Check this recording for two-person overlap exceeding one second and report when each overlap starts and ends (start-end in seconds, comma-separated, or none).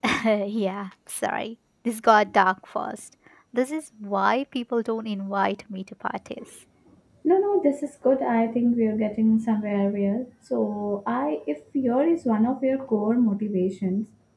none